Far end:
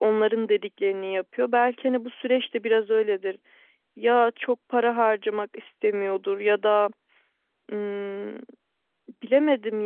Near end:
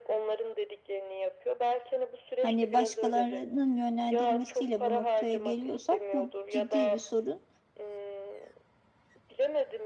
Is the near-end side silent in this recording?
No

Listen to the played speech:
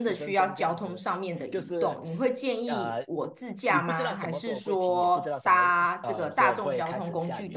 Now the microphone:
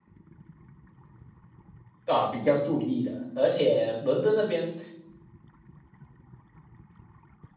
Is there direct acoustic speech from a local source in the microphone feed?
Yes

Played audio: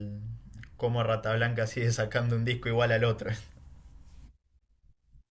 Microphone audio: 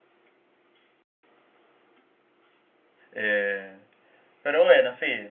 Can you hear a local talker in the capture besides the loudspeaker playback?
Yes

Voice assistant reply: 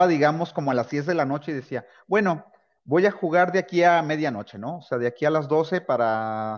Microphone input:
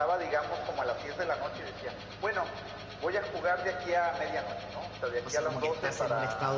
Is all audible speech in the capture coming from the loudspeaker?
No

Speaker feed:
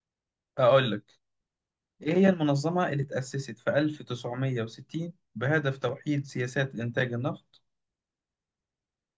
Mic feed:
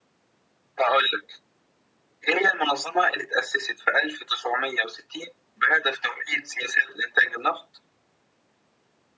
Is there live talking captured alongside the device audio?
No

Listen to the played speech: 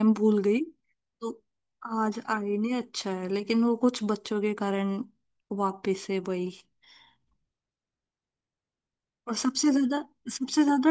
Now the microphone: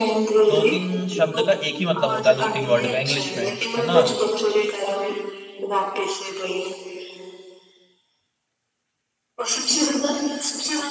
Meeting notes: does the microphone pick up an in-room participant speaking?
Yes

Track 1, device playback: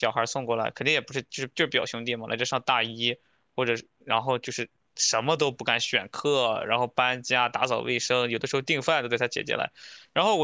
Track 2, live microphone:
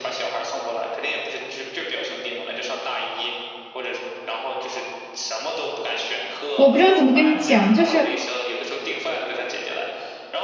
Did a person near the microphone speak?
Yes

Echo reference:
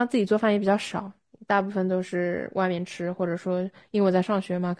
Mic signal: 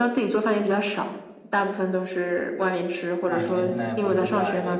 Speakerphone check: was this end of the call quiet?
No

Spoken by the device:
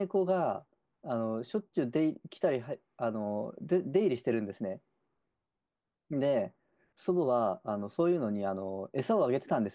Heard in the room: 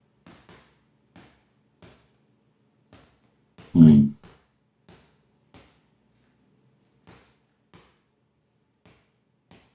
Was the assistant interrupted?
Yes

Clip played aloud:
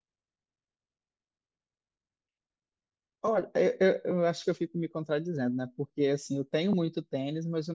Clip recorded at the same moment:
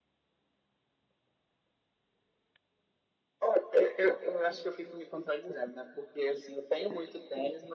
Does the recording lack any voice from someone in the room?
Yes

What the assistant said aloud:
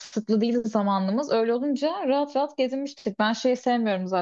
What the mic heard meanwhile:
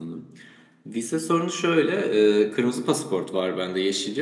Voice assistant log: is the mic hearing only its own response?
No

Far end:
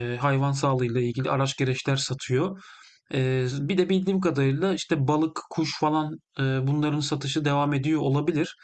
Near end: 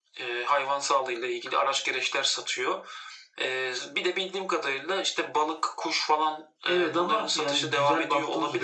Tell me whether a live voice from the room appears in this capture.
Yes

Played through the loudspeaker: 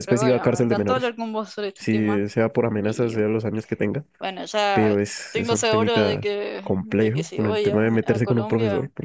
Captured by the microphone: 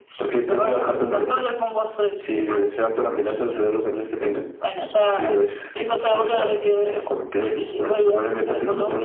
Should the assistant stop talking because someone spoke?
No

